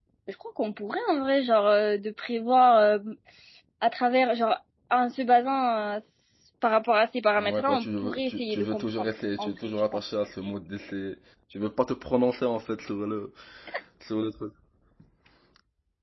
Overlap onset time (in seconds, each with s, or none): 7.4 s